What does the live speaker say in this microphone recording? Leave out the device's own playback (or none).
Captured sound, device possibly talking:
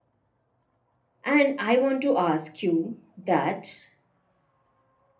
And I want to ask you that,